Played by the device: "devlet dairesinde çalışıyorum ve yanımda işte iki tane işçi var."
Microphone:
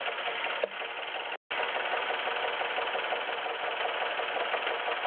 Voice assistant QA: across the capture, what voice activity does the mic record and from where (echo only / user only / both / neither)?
neither